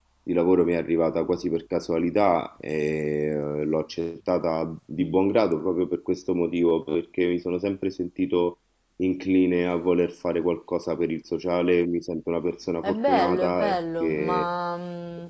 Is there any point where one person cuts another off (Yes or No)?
Yes